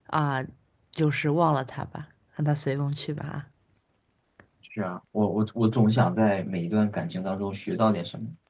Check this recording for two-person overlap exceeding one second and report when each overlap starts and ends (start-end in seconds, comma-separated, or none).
none